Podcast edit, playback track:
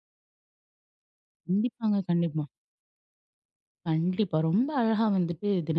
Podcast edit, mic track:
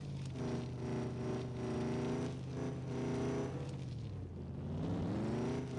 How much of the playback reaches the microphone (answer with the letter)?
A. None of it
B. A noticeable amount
A